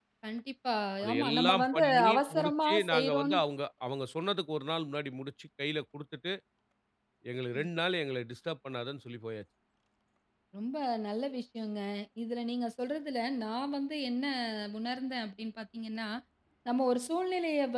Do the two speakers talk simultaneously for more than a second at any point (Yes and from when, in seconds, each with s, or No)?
Yes, from 1.1 s